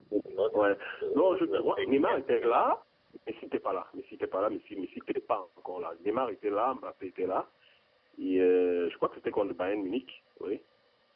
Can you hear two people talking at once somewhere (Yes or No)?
Yes